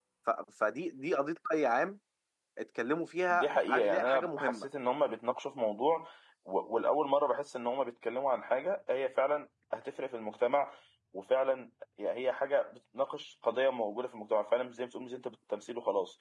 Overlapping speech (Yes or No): Yes